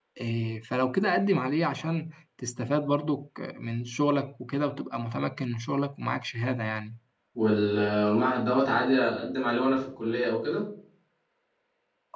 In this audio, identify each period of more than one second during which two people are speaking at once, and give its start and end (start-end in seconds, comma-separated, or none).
none